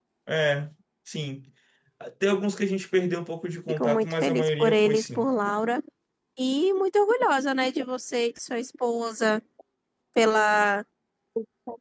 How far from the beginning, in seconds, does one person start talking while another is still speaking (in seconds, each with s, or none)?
3.7 s